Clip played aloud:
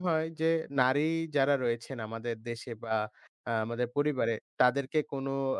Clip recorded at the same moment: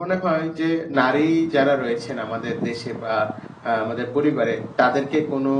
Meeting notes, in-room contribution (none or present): none